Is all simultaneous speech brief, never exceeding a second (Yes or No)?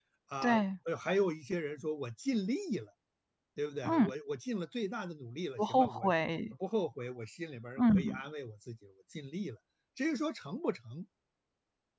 Yes